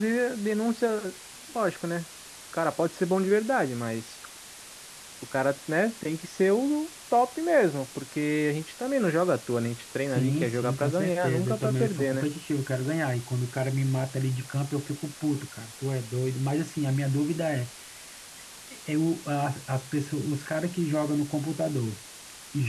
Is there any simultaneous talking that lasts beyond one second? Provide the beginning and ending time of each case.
10.1-12.2

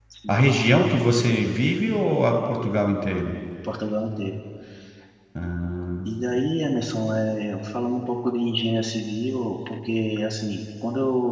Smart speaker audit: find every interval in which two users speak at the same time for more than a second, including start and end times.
none

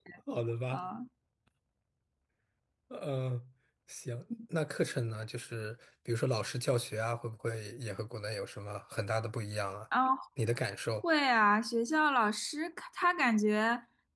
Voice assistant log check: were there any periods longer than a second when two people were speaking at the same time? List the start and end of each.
none

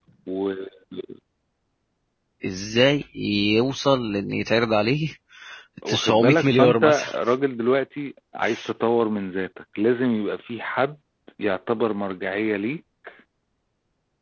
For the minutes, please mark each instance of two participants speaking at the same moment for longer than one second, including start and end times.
5.9-7.1

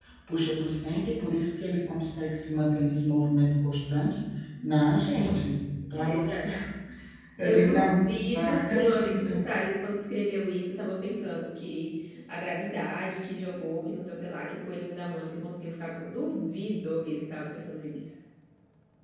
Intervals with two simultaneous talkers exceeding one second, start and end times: 7.4-9.5

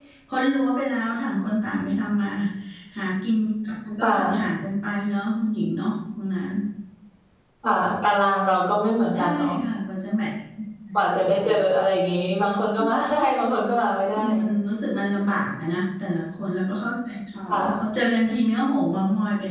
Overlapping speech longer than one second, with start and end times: none

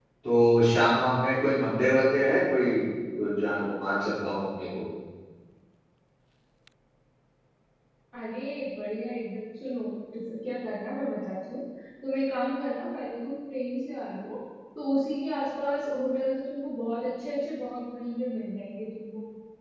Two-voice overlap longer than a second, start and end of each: none

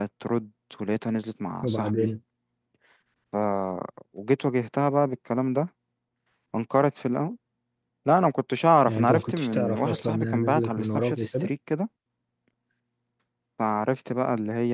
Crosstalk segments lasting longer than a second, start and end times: 8.9-11.5

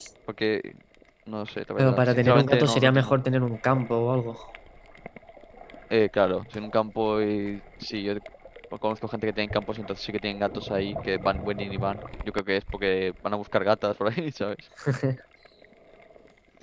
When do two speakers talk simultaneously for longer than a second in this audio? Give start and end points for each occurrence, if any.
1.8-3.1

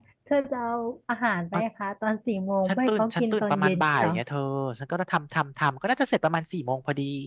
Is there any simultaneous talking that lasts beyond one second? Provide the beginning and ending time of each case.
2.7-4.1

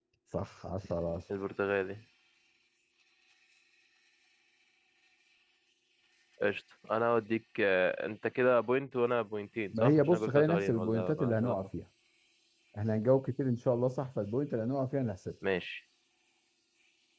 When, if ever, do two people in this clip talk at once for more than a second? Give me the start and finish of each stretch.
9.8-11.6

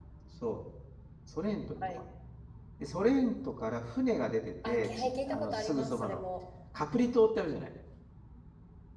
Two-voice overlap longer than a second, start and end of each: 4.7-6.2

